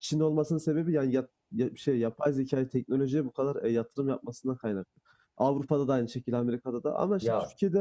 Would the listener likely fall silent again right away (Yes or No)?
Yes